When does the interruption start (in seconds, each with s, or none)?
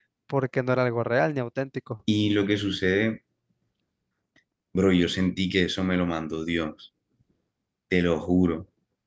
none